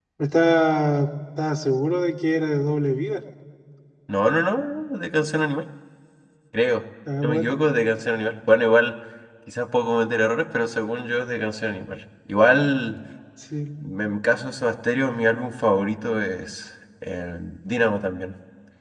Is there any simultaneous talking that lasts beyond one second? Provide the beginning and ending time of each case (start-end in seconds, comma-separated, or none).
none